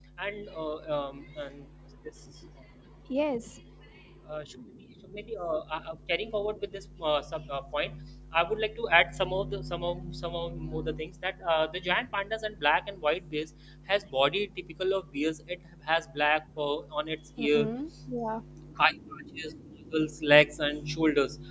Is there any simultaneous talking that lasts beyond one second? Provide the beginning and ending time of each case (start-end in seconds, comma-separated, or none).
none